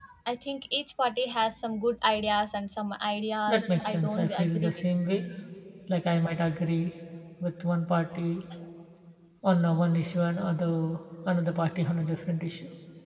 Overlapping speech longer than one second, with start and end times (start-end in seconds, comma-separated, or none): 3.5-4.8